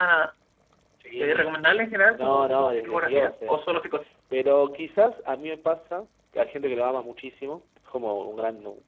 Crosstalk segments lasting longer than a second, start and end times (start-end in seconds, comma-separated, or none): 2.1-3.7